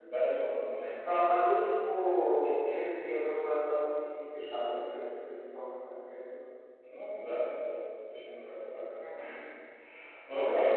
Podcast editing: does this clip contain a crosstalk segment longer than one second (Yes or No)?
No